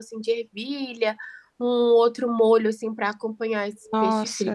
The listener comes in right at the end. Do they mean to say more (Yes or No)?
Yes